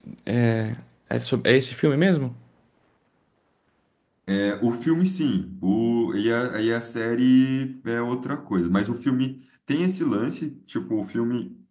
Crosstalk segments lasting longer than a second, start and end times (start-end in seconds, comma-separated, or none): none